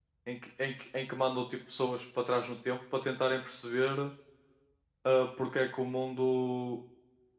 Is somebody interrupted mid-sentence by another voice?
No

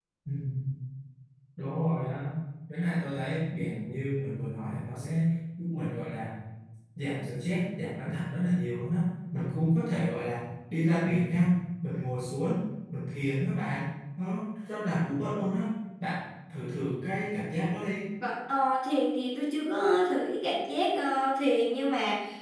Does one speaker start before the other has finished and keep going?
No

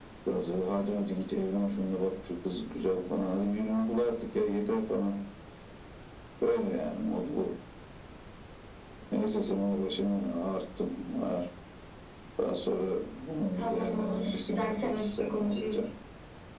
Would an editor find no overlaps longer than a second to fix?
No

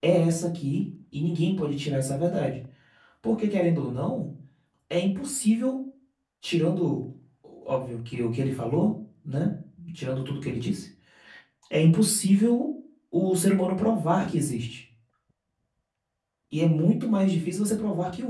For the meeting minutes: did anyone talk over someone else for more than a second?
No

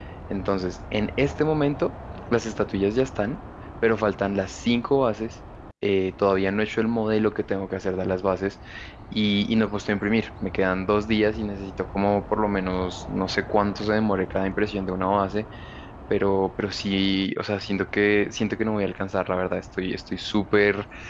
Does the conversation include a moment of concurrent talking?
No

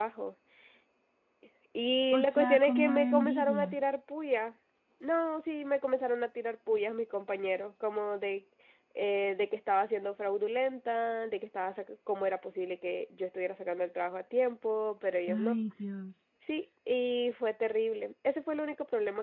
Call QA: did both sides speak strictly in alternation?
No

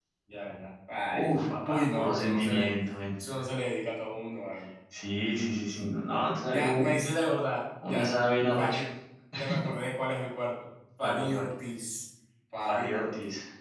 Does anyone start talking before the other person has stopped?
Yes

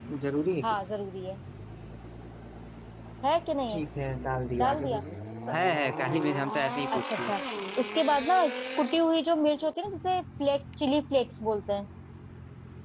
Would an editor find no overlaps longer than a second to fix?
Yes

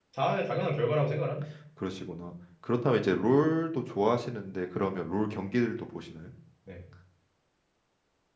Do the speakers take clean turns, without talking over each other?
Yes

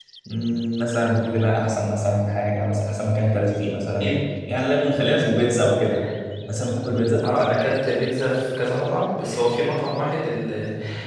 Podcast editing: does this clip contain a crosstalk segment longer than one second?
No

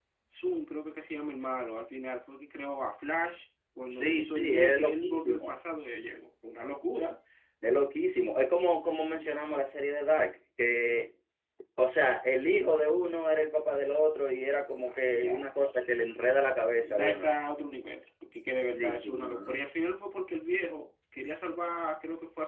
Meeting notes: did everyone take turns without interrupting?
No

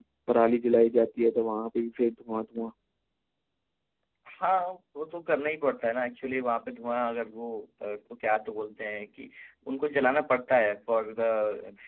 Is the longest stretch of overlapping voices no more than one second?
Yes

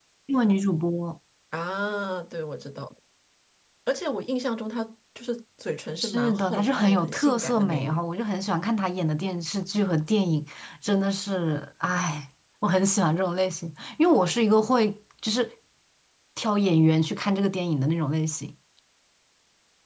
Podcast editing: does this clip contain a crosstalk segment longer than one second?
Yes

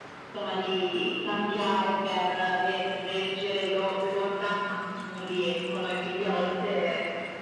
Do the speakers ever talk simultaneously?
No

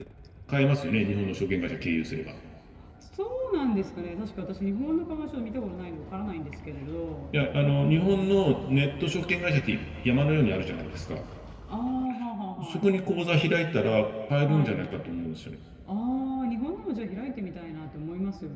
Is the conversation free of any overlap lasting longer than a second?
Yes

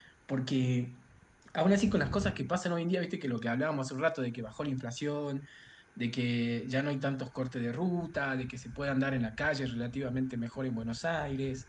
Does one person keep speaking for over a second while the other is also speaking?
No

